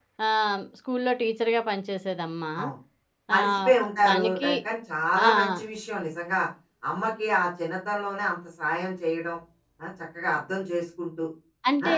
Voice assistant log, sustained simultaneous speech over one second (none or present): none